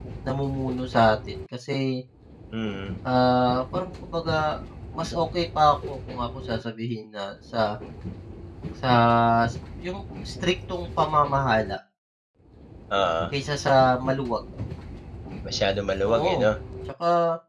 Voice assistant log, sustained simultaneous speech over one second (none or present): none